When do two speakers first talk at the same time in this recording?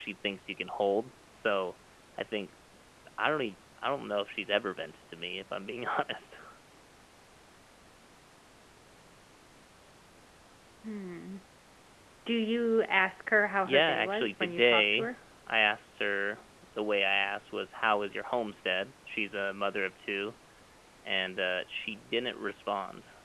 13.6 s

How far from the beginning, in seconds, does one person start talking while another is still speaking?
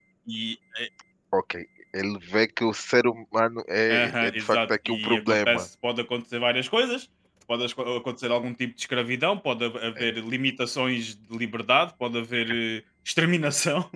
3.9 s

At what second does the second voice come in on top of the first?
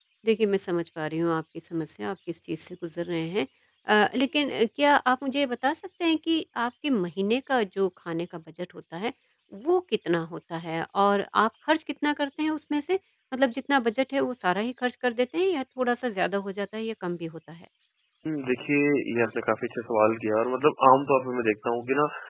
none

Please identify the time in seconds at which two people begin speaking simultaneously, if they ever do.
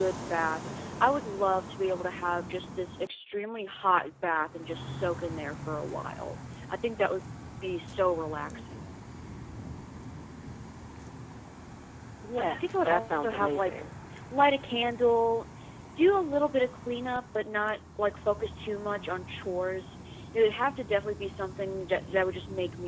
12.4 s

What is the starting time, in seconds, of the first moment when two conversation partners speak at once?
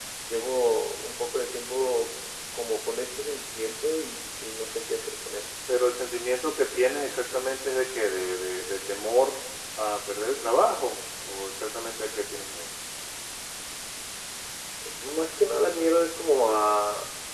none

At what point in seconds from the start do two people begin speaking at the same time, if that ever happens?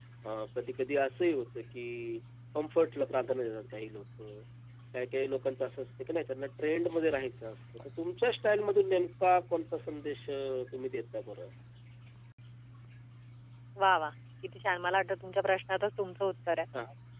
none

